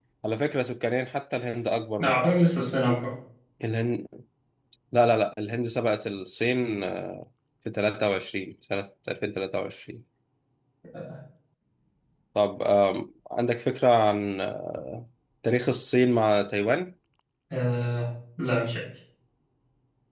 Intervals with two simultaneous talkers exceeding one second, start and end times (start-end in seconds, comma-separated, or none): none